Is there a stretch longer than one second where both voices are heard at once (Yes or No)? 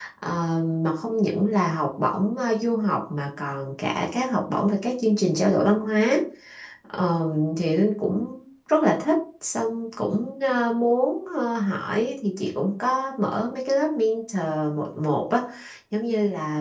No